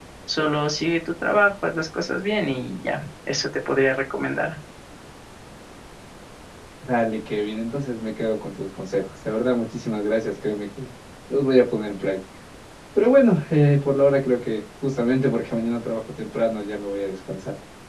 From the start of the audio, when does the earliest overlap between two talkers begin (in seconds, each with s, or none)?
none